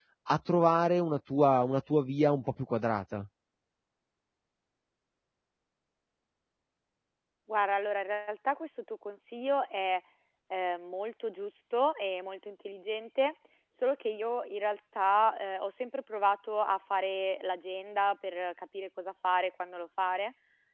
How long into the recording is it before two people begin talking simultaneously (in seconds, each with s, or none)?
none